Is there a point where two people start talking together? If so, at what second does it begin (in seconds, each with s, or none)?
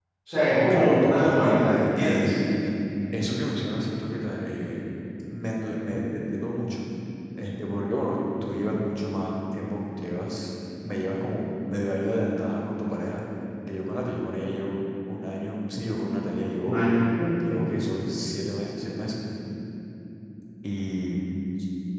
0.5 s